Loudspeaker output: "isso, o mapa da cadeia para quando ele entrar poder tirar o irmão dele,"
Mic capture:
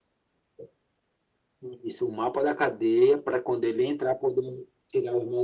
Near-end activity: none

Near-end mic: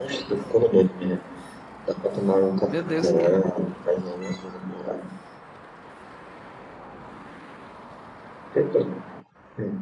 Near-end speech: present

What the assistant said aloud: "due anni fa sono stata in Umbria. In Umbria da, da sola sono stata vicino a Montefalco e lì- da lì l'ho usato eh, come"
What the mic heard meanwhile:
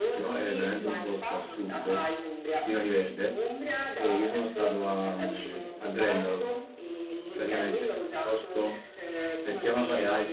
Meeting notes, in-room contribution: present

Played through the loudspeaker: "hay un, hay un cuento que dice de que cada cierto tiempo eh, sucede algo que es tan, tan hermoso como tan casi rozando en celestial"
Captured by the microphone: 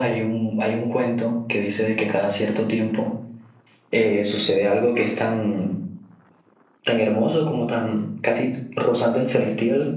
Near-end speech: none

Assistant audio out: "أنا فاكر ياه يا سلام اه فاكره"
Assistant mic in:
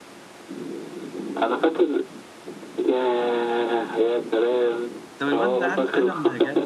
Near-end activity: present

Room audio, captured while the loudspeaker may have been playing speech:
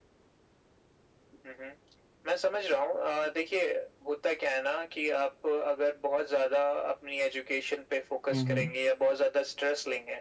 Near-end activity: present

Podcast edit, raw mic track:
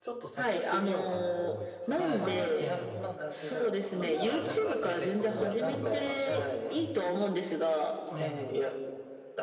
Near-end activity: present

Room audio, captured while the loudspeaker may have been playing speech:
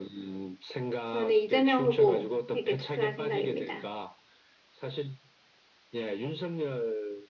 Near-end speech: present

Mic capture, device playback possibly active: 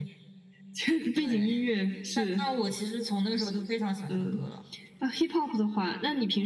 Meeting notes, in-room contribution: none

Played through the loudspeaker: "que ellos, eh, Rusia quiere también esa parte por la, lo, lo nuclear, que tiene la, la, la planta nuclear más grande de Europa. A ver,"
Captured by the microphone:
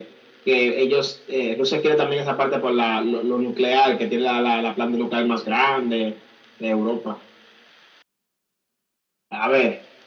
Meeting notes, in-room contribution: none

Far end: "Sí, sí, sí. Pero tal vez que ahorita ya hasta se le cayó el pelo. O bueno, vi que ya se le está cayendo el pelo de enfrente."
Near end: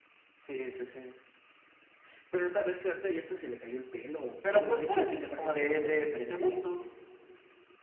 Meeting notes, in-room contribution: present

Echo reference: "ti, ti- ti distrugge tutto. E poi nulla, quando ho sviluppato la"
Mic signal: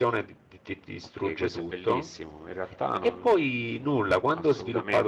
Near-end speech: present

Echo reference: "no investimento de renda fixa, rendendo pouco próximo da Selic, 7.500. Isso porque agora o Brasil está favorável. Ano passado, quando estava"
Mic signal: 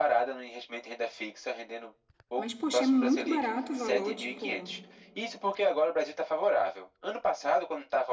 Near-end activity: present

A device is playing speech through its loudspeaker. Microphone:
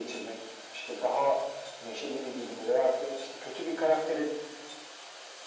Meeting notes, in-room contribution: none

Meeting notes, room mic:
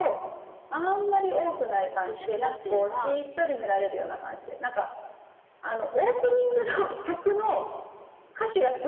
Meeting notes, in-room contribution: present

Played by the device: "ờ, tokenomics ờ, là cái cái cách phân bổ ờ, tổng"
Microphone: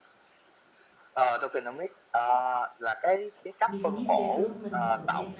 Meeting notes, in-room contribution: present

